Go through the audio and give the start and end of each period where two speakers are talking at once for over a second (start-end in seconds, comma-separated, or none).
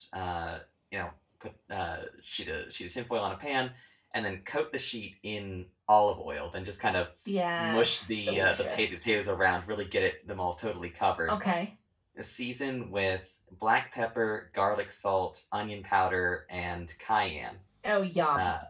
7.6-8.8